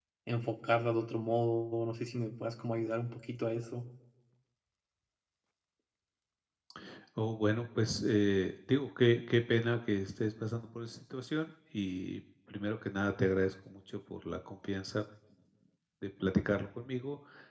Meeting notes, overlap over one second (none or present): none